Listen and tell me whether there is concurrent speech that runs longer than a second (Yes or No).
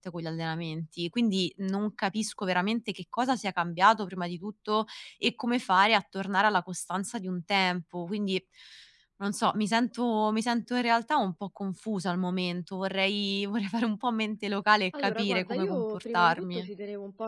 Yes